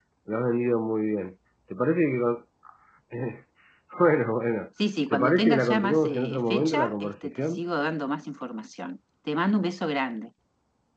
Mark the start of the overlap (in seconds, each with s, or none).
5.1 s